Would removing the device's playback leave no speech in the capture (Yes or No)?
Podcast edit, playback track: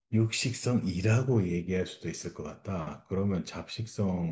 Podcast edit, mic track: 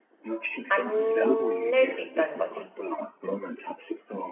No